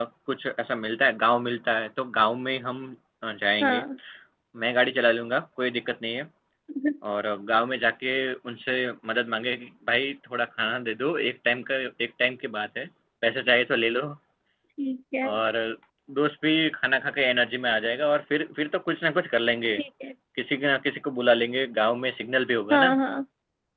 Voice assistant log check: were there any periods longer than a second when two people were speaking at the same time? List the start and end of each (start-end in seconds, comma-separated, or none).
none